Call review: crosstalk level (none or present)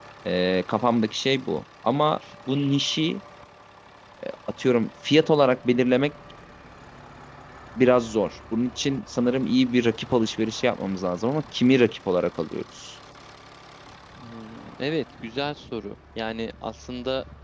none